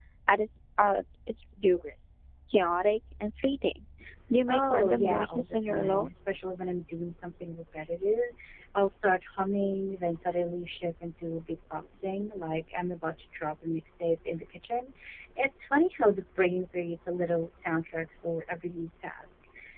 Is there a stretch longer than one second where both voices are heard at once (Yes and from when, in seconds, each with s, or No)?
Yes, from 4.5 s